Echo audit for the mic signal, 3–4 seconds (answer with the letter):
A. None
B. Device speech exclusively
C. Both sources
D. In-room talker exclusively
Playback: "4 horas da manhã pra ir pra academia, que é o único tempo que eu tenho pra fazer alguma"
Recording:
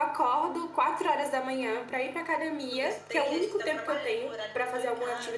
C